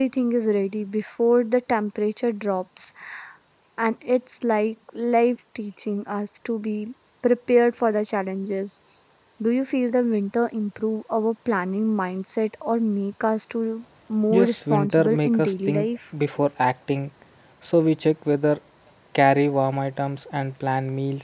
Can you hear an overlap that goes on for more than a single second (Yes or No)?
Yes